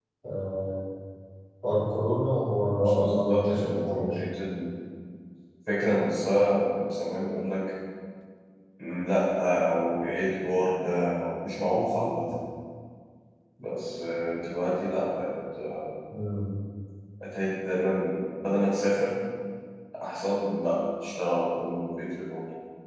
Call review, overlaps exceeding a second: present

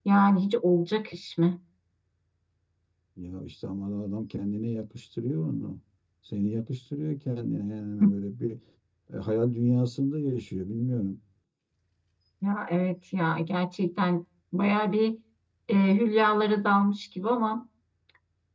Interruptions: none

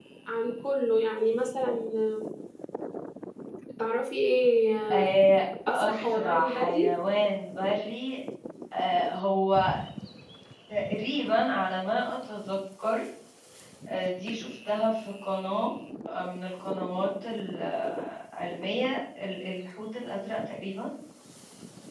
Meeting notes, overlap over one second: present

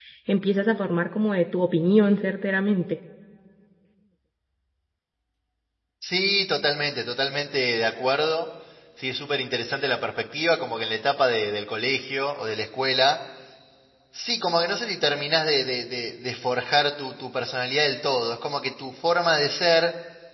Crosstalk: none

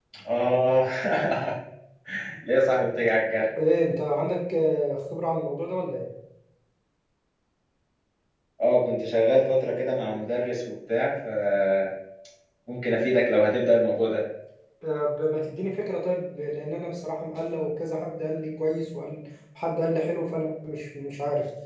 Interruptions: none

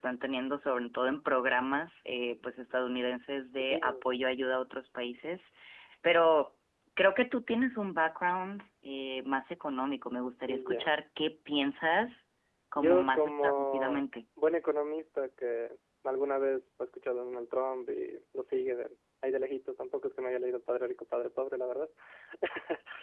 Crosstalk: present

